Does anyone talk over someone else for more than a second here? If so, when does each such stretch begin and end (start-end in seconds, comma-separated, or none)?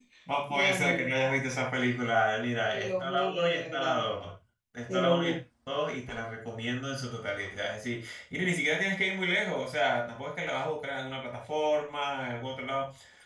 2.6-4.0